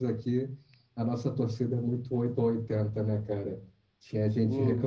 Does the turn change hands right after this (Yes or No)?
No